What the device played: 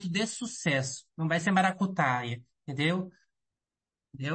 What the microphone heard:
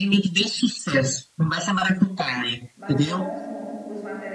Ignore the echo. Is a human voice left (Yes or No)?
Yes